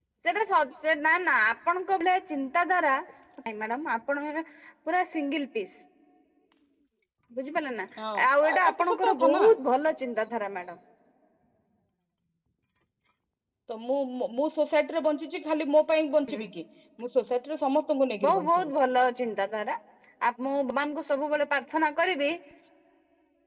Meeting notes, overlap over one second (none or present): present